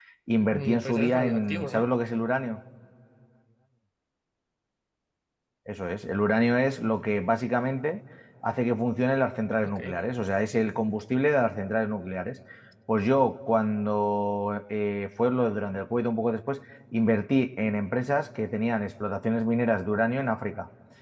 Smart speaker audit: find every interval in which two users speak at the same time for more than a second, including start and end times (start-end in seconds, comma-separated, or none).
0.5-1.9